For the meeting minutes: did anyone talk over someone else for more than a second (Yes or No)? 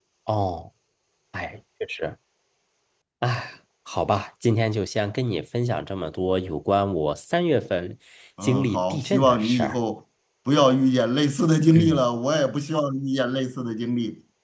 Yes